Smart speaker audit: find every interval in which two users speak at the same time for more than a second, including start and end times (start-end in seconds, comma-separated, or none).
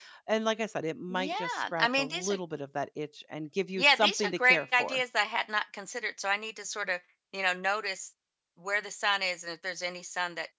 1.1-2.4, 3.8-5.0